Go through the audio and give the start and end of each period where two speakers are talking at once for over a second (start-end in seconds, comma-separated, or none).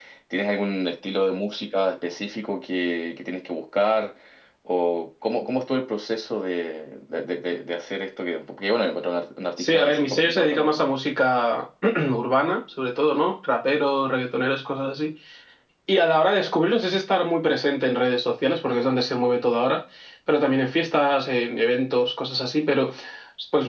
9.6-10.8